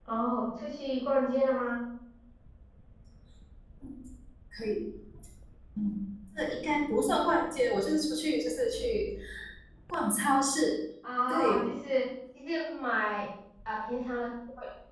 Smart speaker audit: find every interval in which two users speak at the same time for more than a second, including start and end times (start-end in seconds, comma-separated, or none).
none